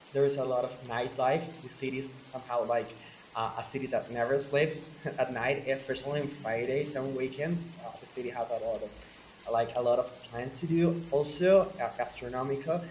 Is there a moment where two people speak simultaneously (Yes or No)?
No